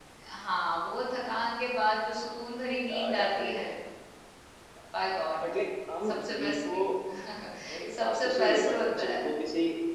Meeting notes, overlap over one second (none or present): present